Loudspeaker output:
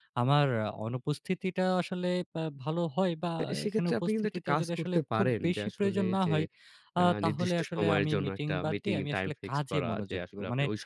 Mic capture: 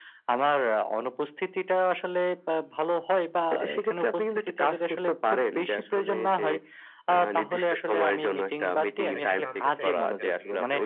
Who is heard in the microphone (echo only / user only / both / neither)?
both